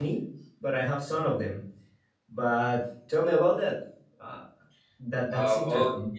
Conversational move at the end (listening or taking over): taking over